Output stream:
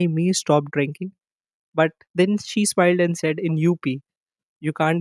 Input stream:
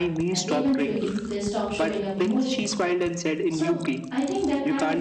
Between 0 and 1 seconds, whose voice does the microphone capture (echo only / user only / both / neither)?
both